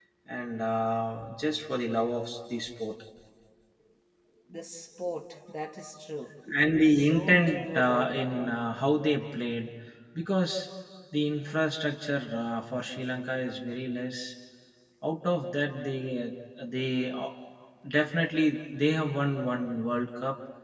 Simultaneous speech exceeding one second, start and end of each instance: 6.9-8.6

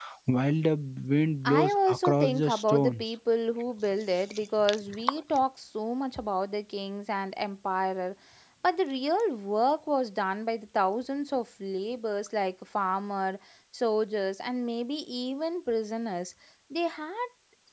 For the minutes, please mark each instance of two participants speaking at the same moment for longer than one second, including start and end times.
1.4-3.1

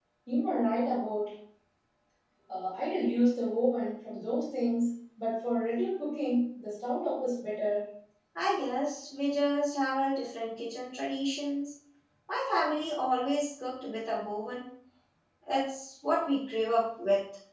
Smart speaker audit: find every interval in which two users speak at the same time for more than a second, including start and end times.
none

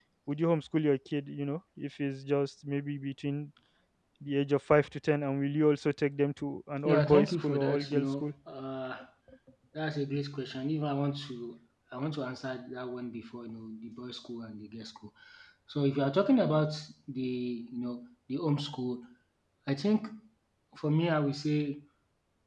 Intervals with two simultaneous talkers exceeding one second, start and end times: 6.8-8.3

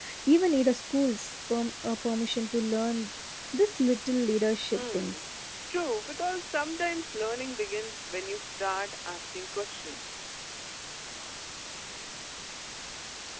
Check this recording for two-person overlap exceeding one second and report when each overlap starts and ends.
none

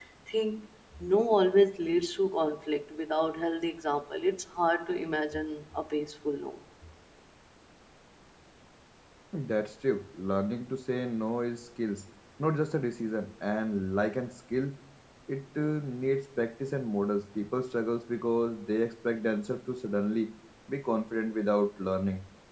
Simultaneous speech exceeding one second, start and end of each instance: none

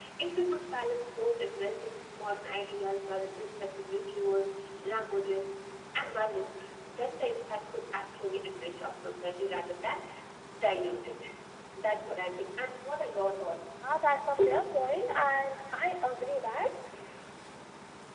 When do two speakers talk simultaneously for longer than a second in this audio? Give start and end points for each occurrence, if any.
none

